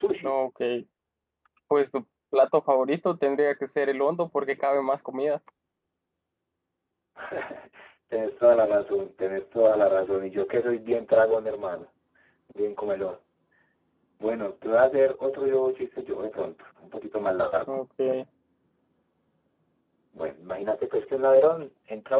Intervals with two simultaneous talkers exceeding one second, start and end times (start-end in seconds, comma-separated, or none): none